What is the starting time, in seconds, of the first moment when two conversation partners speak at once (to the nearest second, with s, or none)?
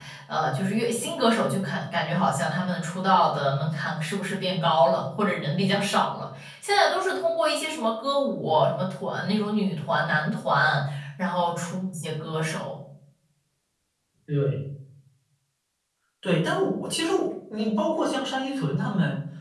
none